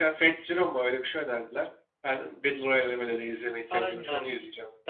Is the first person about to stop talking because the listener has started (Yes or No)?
Yes